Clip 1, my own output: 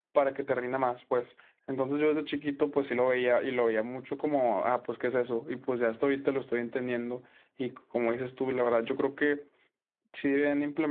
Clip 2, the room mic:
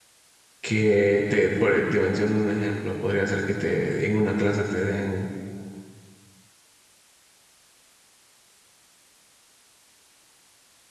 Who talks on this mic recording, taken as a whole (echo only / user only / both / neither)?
user only